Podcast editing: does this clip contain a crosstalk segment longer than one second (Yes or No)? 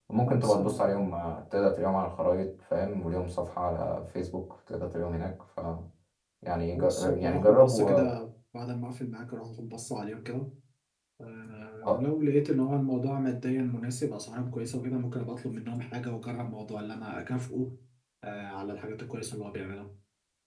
Yes